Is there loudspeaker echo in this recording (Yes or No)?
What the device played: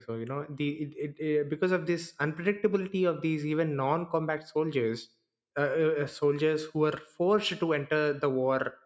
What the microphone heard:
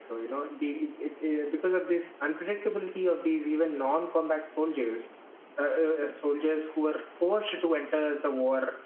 Yes